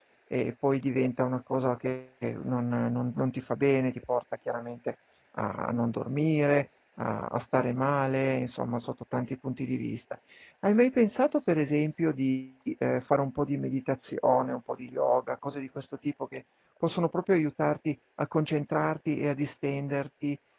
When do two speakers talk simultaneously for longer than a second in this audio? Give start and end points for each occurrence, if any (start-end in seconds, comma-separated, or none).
none